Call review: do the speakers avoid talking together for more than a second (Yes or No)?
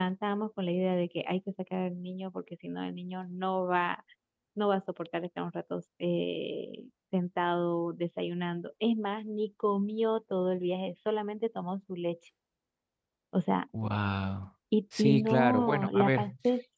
No